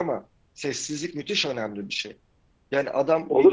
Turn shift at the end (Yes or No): Yes